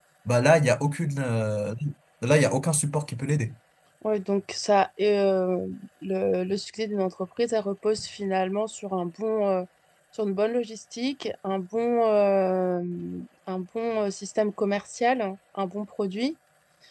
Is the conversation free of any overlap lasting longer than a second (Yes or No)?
Yes